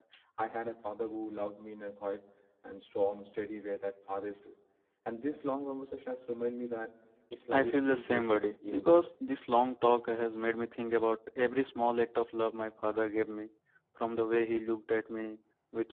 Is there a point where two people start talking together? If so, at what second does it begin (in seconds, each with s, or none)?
7.3 s